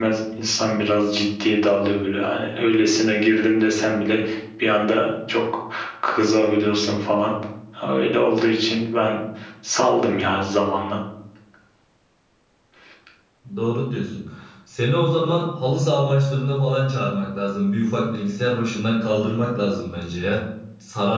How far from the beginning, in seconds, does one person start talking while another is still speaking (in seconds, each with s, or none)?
none